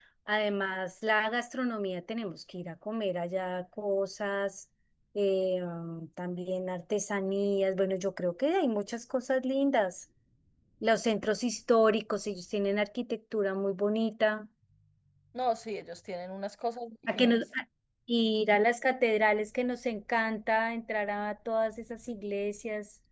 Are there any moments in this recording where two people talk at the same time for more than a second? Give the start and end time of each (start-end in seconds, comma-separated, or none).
none